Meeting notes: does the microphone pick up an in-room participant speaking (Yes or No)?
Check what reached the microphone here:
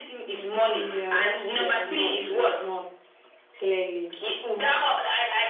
Yes